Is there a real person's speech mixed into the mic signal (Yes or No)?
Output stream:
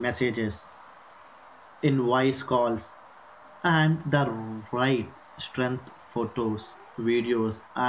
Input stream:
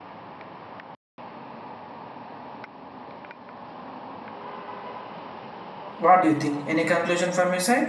Yes